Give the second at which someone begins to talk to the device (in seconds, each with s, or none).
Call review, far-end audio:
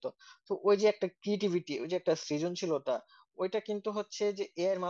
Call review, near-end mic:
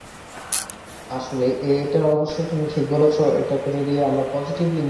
1.2 s